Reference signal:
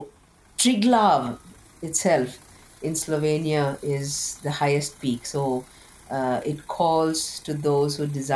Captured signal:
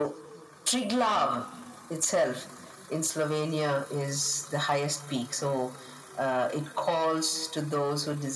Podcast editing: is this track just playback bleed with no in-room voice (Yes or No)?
Yes